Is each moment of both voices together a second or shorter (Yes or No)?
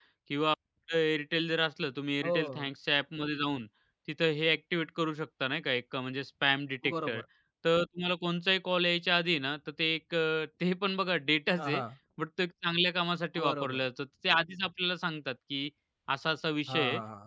Yes